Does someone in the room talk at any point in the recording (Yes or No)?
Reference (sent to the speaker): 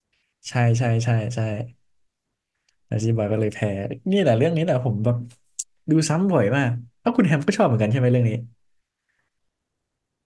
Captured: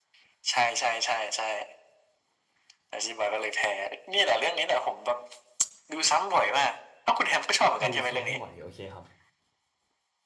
Yes